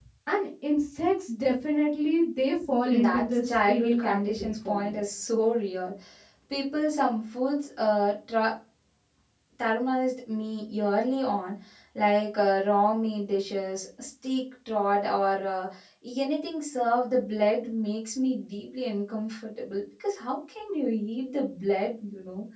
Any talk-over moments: Yes, from 2.9 s

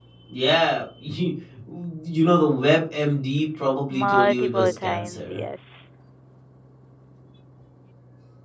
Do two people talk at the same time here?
Yes, from 3.9 s

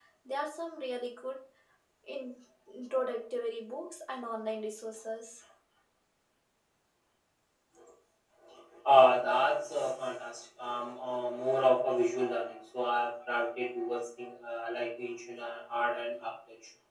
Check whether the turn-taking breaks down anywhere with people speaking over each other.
No

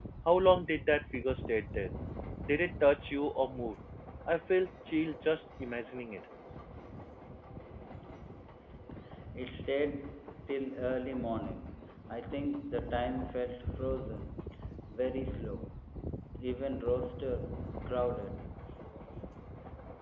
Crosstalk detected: No

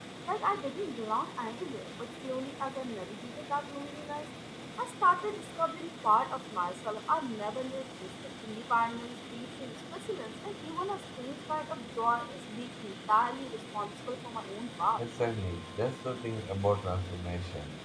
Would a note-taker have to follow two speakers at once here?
No

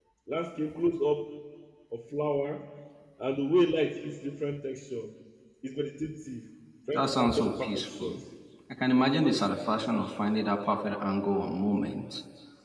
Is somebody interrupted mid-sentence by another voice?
Yes, from 6.9 s

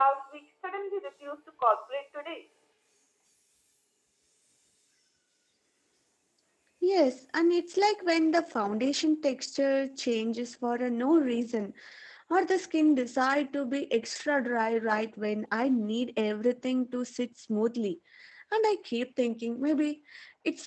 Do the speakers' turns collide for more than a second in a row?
No

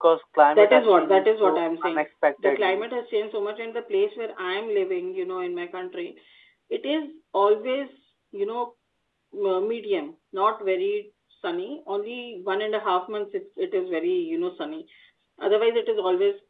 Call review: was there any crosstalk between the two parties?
Yes, from 0.6 s

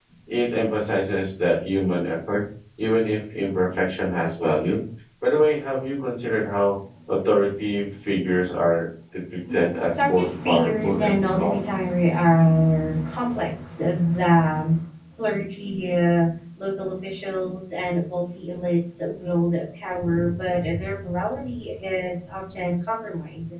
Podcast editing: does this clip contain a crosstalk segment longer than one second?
Yes, from 9.5 s

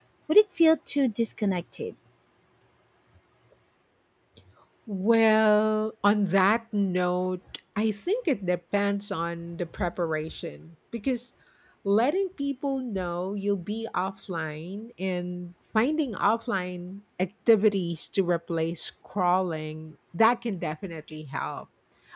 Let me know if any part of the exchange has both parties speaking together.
No

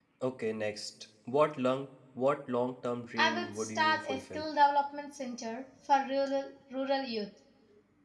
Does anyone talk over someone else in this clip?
Yes, from 3.2 s

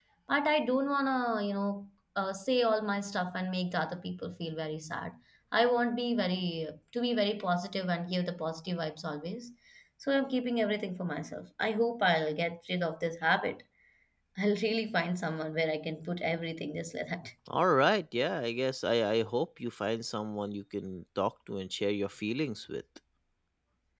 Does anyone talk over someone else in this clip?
No

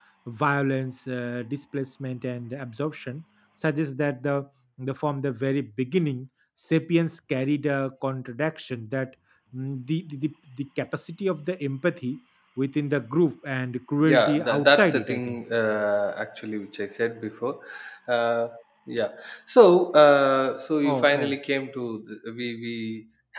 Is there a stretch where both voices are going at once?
Yes, from 14.0 s

